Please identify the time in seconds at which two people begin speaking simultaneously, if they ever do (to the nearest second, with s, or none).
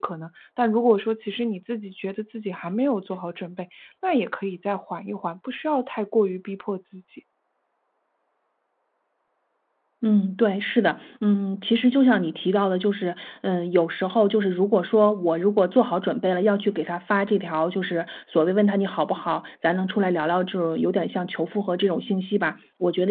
none